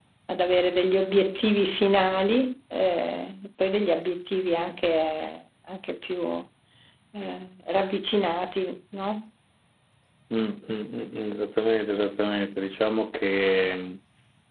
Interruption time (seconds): none

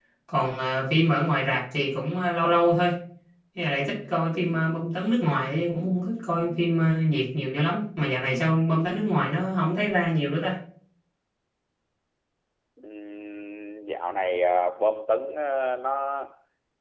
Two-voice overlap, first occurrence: none

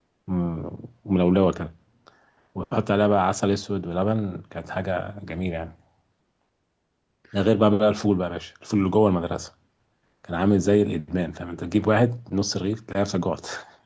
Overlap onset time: none

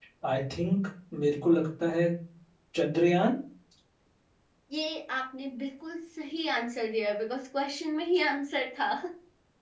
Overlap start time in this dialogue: none

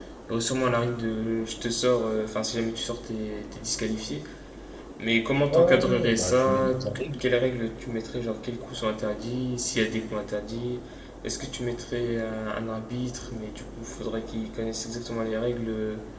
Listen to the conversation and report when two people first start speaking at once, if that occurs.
6 s

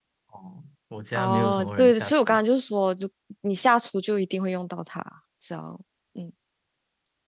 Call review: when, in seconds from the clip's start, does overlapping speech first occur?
1 s

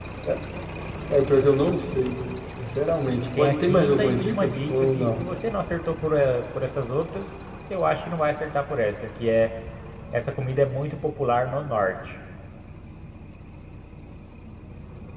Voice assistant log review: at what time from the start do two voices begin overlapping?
3 s

